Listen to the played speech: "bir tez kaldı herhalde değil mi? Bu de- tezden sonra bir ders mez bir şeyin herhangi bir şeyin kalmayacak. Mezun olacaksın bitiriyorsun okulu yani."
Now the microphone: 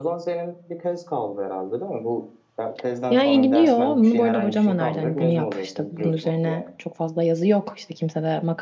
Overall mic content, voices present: both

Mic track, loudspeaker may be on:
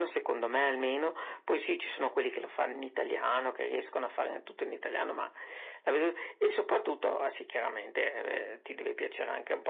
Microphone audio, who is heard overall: echo only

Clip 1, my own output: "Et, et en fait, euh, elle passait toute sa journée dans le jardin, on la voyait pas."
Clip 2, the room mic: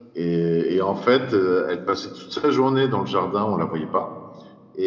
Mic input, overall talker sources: echo only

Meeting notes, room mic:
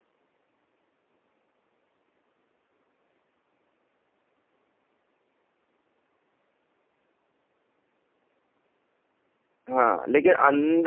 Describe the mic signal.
user only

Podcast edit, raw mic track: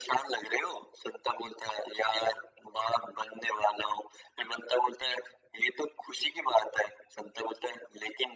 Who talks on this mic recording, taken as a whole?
echo only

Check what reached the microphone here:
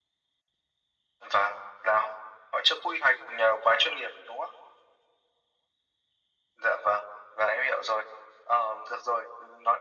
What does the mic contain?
echo only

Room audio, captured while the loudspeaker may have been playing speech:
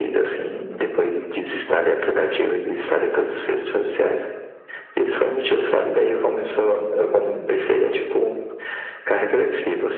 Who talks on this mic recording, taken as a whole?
echo only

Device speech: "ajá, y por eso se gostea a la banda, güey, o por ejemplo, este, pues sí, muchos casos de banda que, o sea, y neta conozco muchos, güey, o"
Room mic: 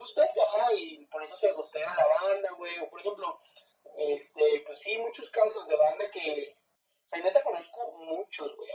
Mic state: echo only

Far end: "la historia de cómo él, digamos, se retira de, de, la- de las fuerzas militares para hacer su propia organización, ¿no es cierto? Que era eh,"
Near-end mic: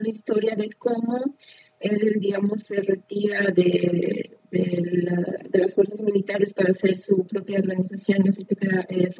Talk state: echo only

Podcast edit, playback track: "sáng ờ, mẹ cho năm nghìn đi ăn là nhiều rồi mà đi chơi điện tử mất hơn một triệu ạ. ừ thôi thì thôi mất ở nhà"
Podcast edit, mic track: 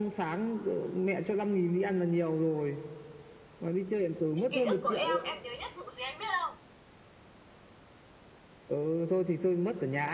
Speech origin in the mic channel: both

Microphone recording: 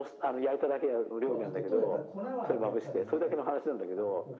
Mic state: both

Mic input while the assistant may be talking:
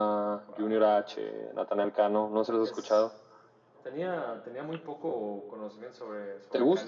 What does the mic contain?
both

